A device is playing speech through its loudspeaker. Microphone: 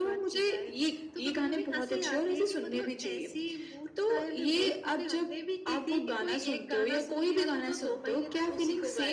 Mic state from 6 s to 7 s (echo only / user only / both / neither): echo only